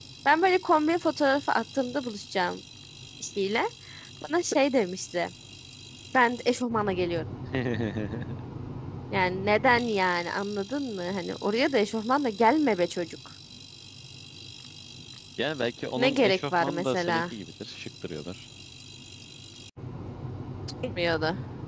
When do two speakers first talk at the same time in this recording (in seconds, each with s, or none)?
16.0 s